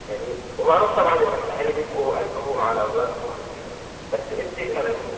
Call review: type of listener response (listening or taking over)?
listening